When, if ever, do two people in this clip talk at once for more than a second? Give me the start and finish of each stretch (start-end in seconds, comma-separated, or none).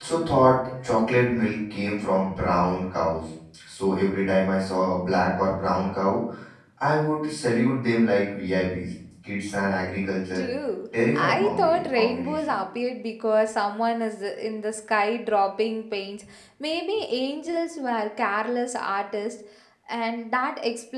11.1-12.3